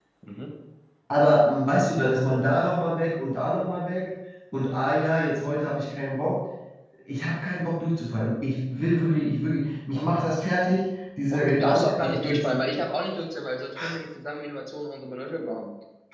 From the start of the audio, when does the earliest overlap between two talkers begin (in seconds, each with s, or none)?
11.3 s